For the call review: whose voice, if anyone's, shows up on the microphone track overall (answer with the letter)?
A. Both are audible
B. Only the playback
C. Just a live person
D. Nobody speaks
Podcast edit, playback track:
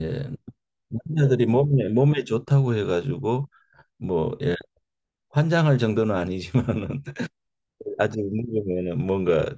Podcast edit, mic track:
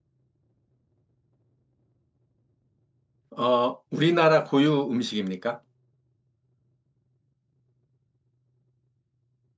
C